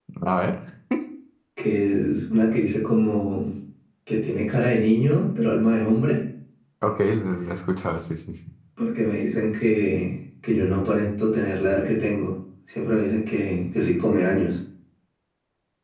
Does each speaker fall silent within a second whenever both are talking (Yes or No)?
Yes